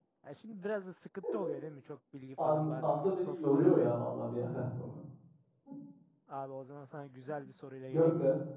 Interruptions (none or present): present